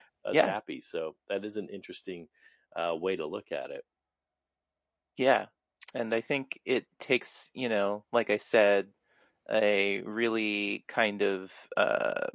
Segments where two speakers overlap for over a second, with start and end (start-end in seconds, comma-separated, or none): none